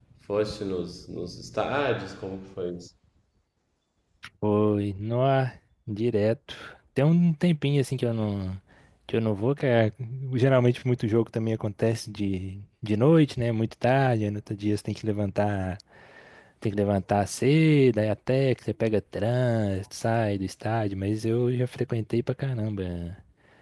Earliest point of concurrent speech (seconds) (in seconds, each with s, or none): none